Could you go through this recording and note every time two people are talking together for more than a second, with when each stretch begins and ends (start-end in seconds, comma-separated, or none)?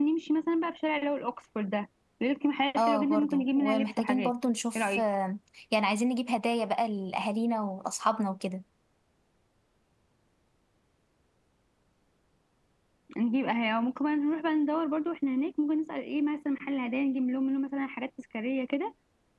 2.8-4.3